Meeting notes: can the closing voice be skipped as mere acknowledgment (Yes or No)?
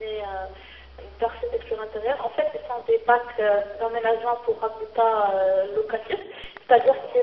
Yes